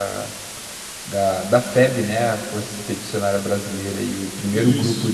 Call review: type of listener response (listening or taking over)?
listening